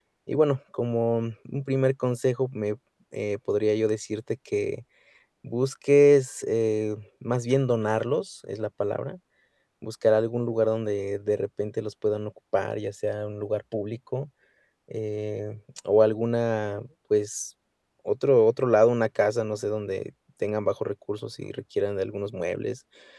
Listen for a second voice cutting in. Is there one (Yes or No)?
No